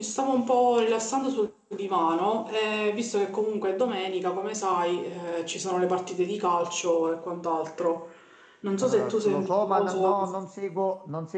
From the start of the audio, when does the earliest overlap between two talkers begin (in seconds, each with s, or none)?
8.8 s